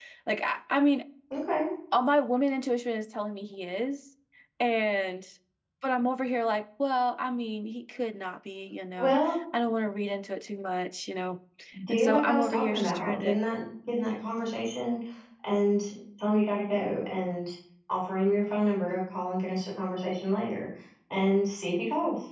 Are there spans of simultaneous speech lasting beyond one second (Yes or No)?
Yes